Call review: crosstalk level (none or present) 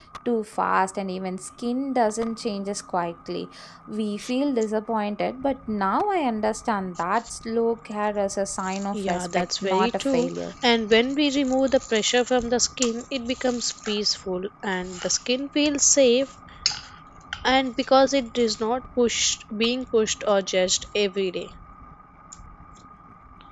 present